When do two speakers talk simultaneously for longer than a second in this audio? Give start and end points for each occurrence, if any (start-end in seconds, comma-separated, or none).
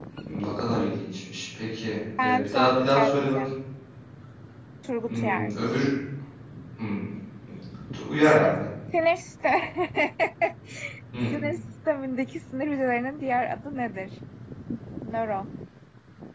2.2-3.4